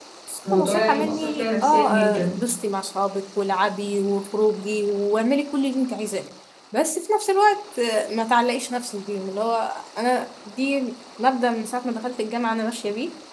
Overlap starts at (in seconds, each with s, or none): 0.5 s